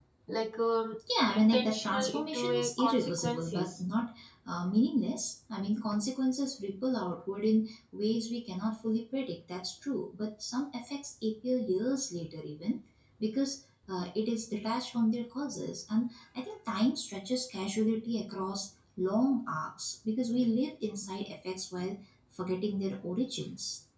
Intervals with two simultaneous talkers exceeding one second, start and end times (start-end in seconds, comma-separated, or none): 1.2-3.8